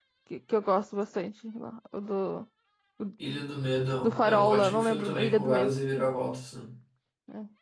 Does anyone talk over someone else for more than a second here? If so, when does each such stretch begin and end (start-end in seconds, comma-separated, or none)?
4.0-5.8